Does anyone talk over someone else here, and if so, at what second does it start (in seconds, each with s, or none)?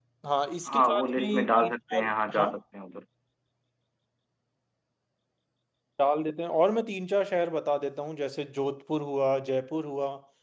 0.7 s